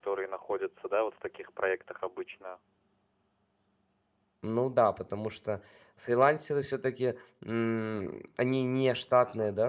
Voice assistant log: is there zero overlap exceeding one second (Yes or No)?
Yes